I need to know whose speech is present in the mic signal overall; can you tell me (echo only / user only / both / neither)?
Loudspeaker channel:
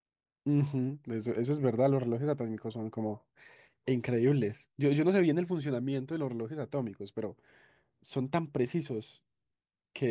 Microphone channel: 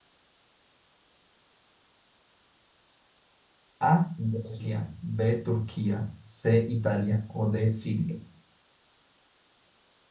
user only